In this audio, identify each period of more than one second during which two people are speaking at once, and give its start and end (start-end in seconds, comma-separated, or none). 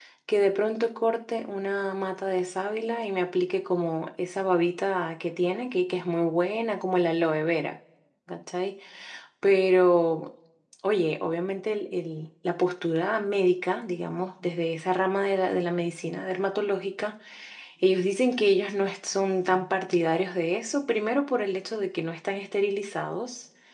none